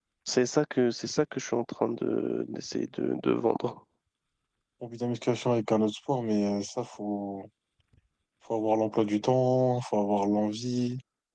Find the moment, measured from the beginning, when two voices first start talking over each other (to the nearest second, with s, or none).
none